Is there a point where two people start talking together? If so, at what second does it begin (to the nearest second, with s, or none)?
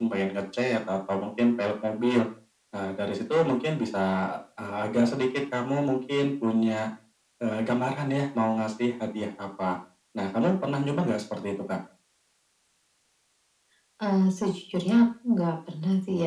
none